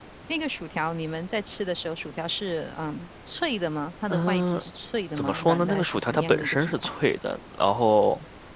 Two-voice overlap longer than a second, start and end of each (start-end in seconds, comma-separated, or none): 5.2-6.9